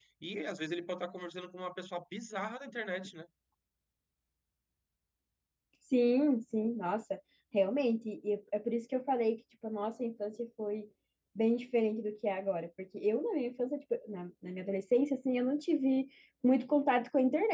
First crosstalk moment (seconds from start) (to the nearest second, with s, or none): none